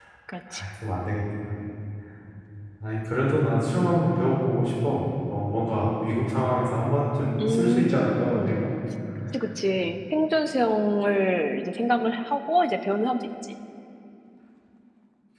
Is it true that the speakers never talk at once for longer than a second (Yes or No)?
No